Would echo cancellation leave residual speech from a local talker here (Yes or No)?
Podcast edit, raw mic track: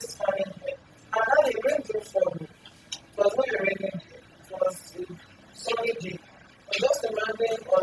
No